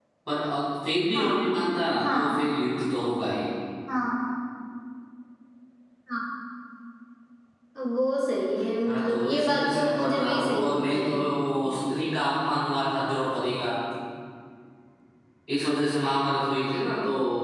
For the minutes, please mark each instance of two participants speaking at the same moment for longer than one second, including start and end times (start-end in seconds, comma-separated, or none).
8.9-11.1